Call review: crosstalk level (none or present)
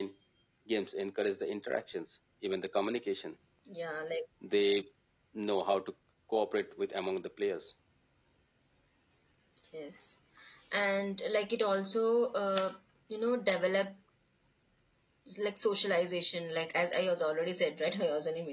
none